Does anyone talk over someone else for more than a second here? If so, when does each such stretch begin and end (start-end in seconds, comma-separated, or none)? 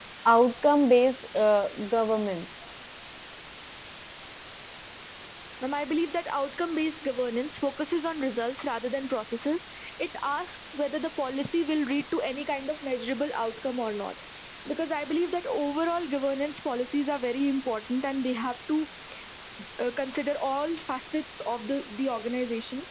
none